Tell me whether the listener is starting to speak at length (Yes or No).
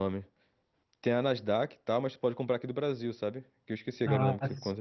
Yes